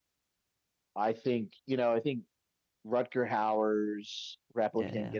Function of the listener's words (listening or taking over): listening